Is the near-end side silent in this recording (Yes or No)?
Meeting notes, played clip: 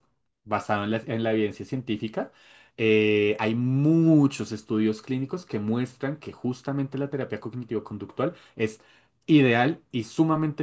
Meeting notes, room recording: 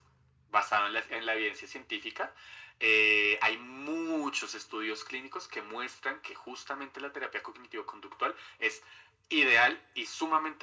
Yes